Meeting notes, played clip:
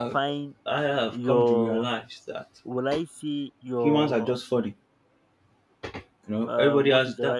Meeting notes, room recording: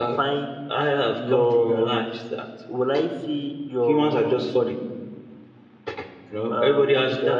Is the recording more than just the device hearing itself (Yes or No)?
No